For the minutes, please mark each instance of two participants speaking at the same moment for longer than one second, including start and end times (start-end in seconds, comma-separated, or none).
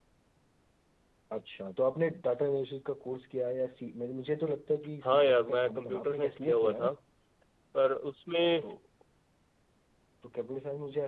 5.0-6.9